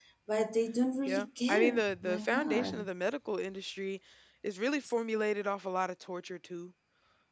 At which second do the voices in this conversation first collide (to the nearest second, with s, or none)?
1 s